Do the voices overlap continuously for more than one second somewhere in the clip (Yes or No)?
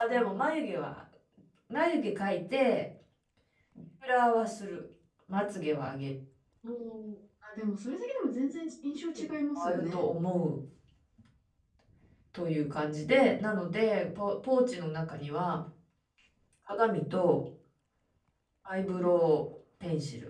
No